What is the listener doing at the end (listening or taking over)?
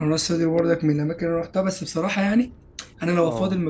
listening